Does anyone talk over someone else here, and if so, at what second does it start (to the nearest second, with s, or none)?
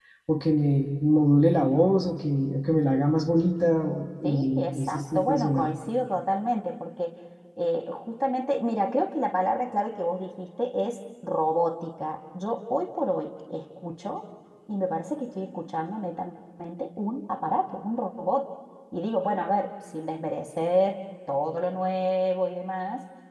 4 s